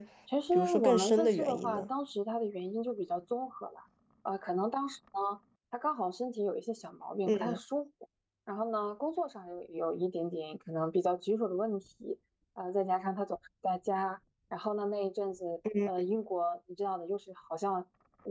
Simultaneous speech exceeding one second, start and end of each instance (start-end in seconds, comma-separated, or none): 0.6-1.8